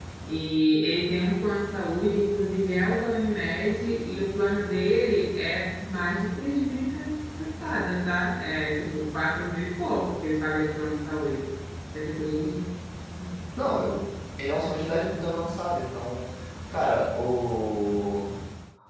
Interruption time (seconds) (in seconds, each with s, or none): none